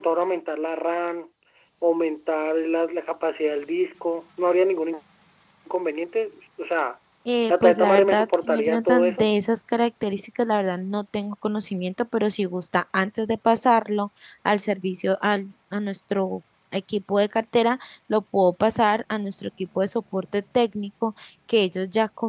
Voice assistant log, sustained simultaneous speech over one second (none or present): present